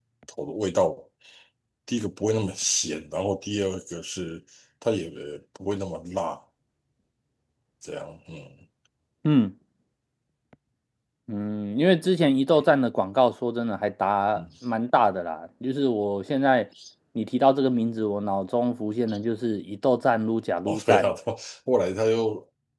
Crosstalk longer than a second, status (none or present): none